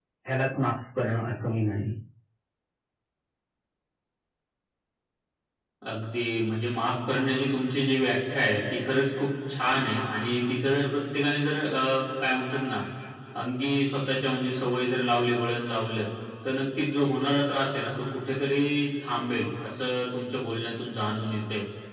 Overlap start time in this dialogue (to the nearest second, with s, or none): none